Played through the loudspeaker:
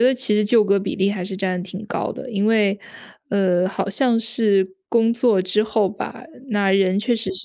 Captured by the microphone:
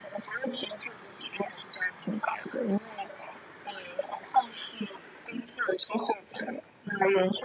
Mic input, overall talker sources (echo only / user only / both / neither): echo only